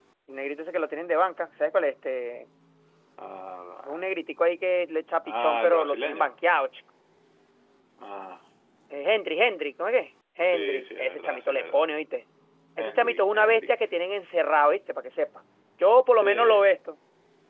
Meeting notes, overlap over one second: present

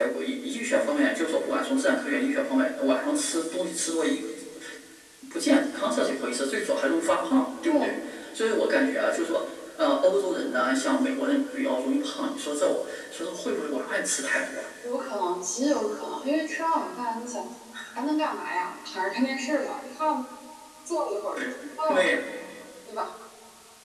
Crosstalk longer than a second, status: none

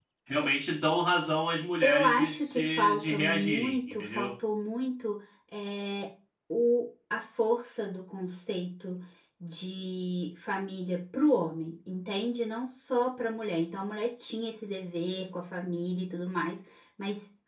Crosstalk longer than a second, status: present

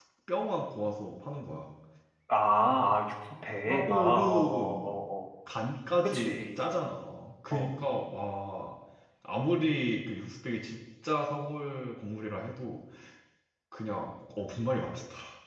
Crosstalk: present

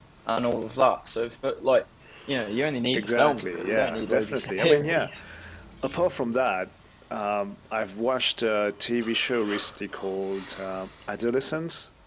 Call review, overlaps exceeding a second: present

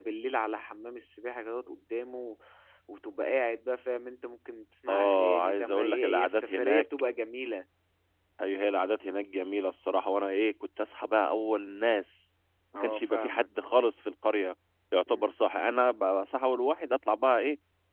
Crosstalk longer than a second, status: present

